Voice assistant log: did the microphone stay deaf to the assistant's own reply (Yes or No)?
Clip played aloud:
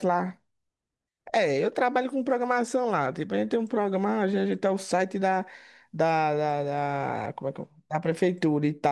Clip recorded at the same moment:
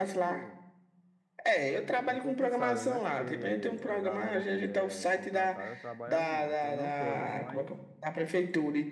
No